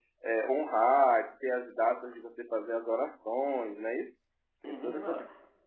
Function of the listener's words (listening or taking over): taking over